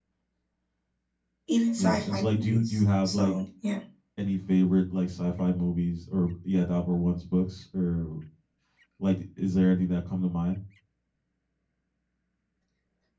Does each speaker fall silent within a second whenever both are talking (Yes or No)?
No